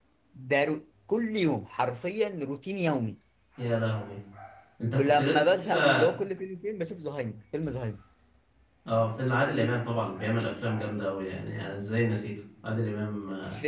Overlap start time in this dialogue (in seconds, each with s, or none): 4.9 s